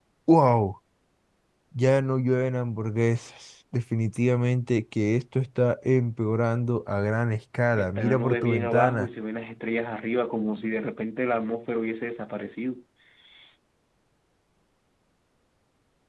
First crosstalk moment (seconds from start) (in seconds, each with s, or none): 7.8 s